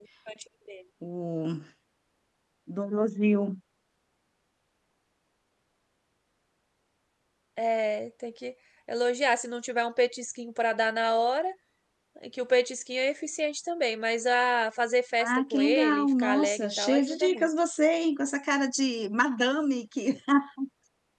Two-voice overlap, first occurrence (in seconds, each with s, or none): 15.2 s